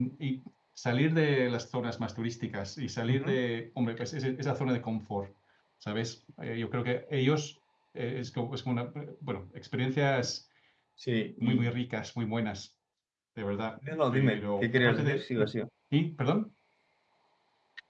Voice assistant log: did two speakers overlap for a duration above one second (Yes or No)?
Yes